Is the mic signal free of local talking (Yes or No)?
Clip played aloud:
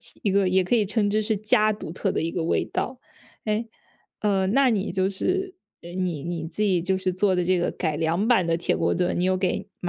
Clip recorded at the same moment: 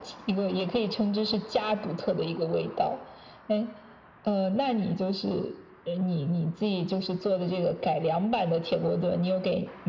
Yes